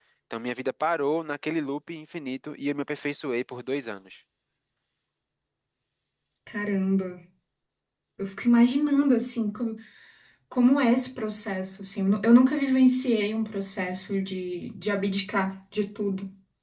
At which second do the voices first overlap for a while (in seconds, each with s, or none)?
none